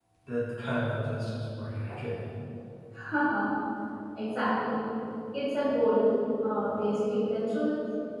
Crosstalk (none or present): none